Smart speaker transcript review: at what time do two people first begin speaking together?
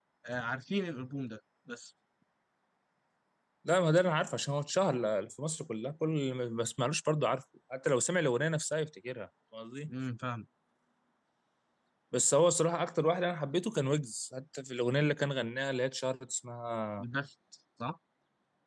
none

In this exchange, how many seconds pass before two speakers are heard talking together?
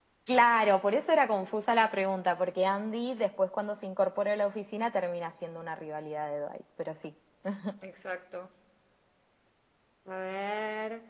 none

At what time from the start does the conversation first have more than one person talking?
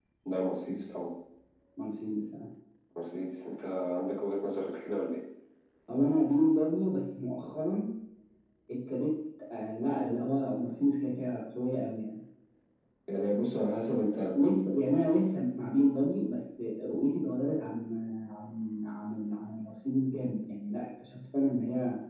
none

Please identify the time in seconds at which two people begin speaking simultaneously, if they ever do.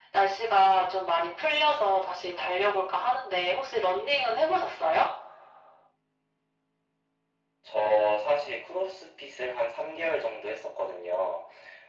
none

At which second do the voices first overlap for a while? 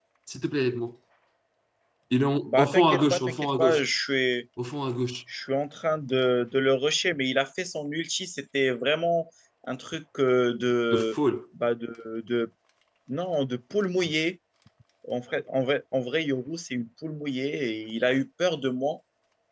2.5 s

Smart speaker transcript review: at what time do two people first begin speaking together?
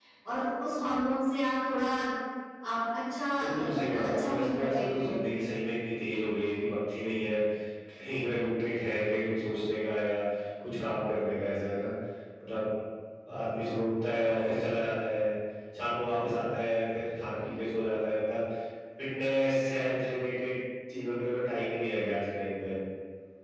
3.4 s

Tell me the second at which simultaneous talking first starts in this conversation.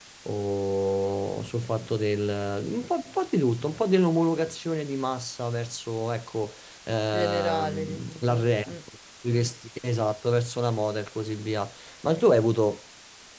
7.1 s

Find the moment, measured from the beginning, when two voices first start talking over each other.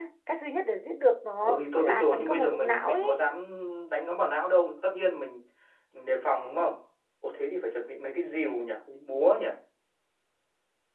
1.4 s

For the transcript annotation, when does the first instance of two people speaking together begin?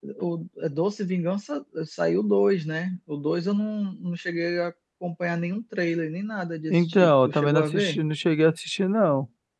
6.7 s

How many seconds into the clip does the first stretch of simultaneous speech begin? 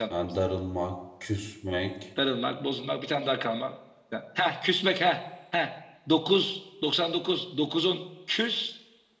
none

